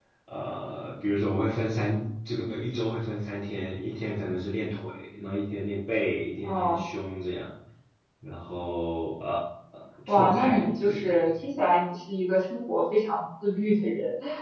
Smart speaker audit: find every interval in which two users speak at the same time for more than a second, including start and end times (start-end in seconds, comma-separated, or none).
10.1-11.3